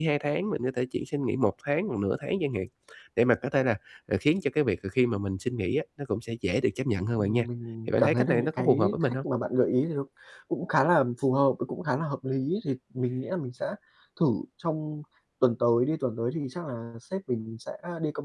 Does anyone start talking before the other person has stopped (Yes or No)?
Yes